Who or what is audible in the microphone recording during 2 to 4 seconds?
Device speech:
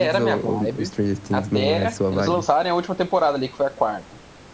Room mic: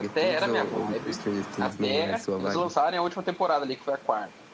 echo only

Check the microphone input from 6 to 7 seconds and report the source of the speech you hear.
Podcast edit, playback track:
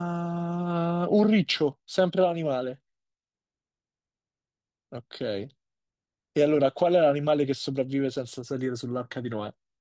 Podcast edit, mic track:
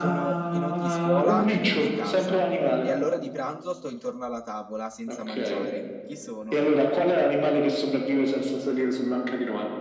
both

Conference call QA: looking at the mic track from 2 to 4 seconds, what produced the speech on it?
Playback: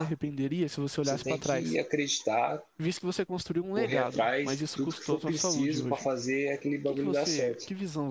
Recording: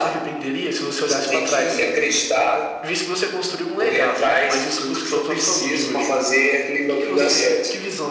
echo only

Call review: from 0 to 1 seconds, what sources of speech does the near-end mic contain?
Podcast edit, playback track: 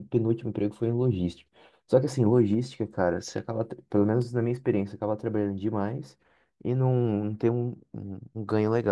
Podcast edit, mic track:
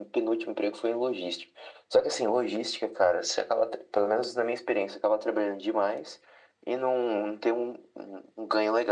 echo only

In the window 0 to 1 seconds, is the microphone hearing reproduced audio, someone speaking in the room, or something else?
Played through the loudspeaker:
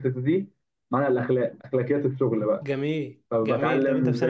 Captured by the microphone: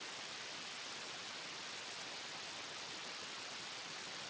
neither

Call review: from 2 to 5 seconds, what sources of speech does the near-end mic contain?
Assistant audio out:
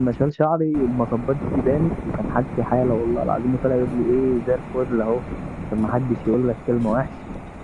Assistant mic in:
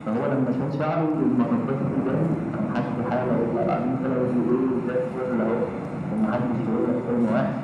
echo only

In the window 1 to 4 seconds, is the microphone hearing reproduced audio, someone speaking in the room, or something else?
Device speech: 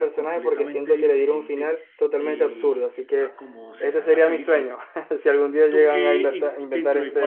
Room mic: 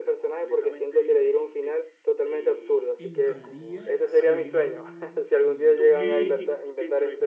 both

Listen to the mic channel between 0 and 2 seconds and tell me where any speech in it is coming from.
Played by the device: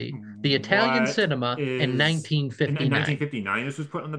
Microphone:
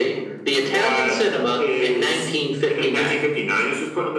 echo only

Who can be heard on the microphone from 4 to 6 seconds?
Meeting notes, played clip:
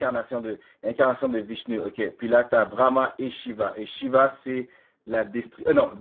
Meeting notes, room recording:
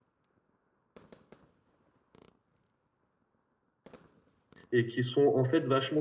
user only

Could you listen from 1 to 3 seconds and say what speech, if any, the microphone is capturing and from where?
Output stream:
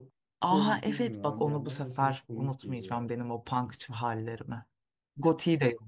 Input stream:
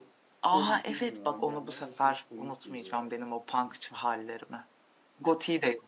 echo only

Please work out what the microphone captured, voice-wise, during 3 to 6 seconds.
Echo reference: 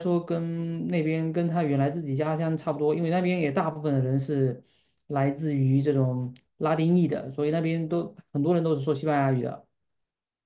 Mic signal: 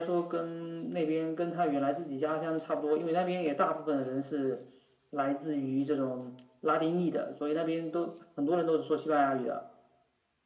echo only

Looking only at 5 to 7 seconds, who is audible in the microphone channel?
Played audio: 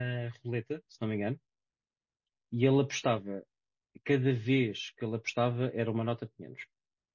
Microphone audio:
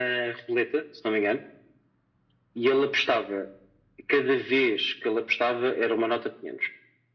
echo only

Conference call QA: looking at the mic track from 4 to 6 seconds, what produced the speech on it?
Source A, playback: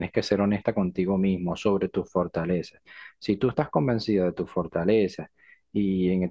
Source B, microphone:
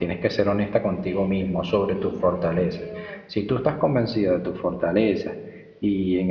echo only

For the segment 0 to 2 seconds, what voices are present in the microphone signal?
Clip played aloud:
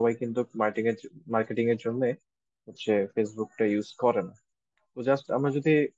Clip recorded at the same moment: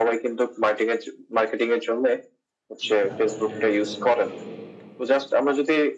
echo only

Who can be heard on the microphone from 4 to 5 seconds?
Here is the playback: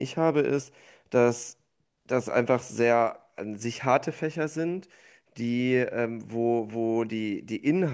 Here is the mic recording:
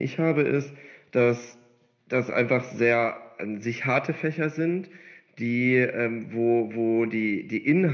echo only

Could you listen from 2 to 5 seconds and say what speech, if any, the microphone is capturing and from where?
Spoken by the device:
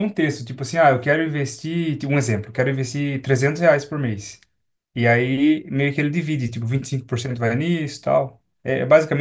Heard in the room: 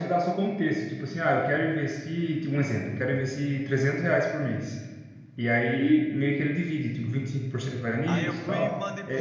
echo only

